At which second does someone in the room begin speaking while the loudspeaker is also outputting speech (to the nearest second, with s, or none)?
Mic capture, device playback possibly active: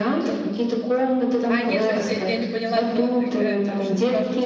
1 s